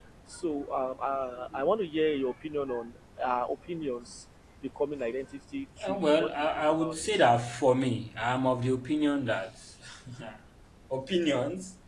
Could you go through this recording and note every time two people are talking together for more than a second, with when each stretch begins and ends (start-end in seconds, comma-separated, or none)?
5.9-7.2